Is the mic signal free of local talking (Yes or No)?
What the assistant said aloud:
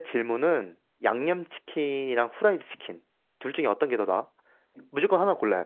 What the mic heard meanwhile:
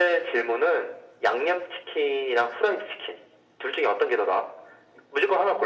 Yes